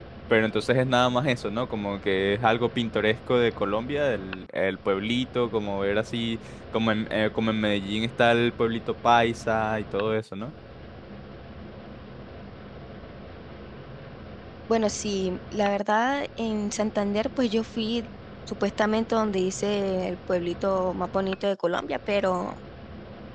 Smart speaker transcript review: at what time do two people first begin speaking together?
none

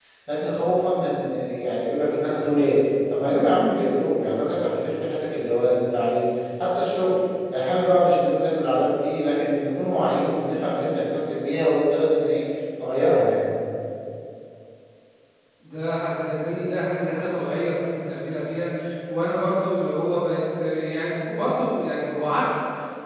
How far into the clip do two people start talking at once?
none

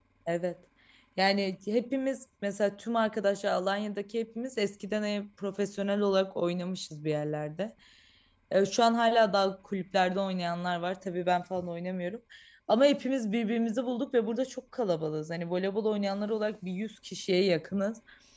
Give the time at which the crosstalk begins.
none

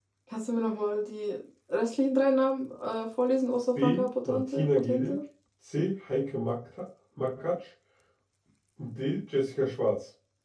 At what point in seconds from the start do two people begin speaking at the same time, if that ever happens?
3.8 s

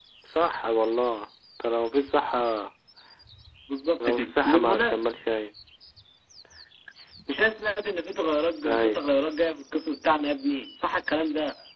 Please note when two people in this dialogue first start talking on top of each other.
4.0 s

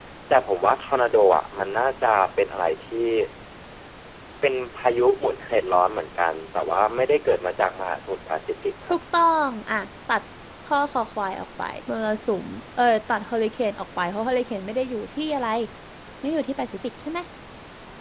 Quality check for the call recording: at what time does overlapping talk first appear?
none

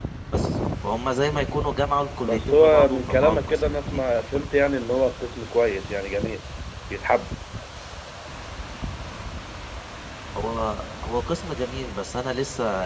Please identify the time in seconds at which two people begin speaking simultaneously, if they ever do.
2.2 s

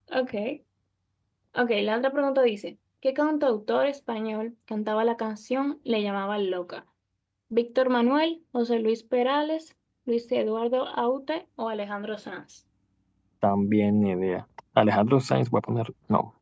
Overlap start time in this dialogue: none

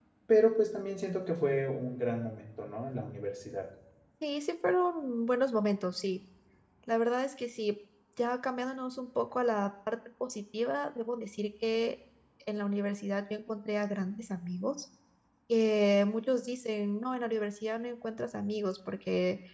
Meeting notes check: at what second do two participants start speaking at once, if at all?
none

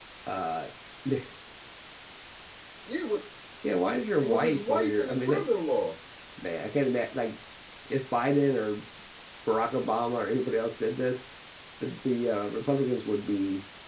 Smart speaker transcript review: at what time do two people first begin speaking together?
4.2 s

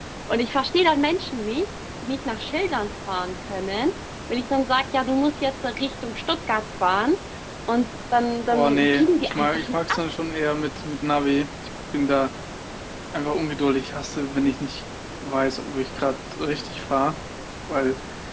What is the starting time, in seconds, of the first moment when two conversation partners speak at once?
8.5 s

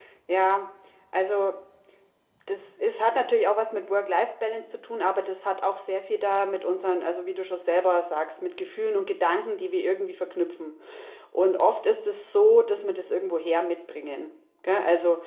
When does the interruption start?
none

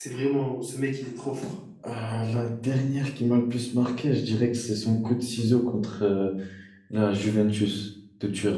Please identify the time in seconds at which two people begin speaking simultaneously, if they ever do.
none

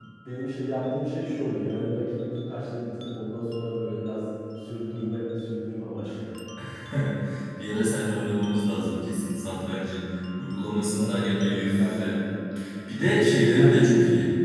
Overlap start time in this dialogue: 10.9 s

